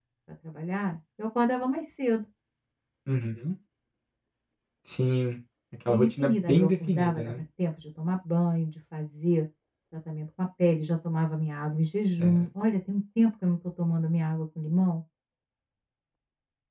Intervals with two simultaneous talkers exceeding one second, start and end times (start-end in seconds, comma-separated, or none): 5.9-7.4